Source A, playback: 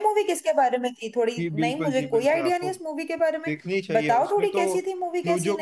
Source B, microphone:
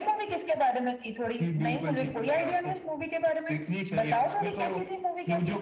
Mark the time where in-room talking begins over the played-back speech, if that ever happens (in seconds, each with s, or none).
none